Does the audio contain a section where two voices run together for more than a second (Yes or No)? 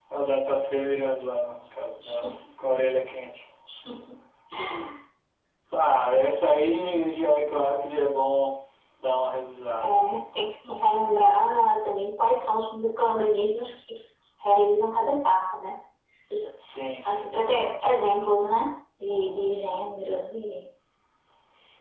No